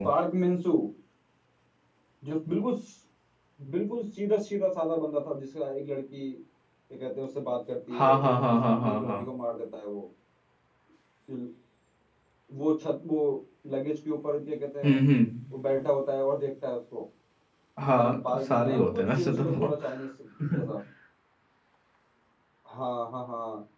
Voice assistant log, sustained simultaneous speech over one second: present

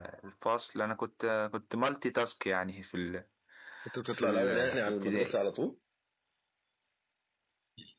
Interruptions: present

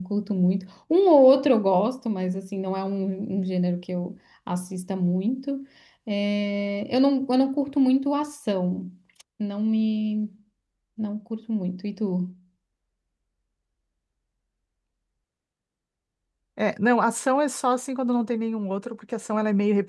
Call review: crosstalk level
none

